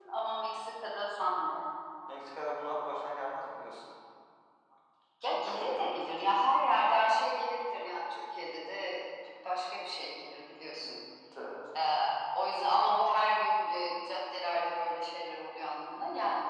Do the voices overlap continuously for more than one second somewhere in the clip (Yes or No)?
No